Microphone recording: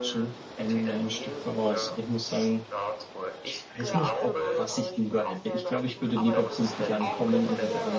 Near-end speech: present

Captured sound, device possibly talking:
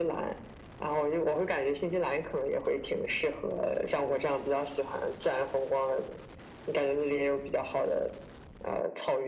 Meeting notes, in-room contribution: none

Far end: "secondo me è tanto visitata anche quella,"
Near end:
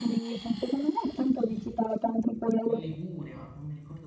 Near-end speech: present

